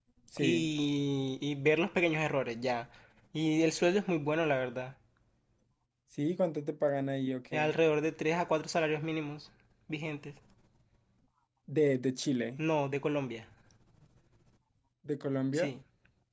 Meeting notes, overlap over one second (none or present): none